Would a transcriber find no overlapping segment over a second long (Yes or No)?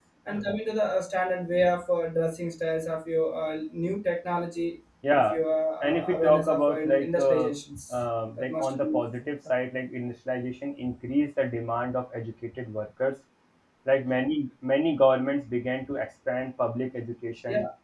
No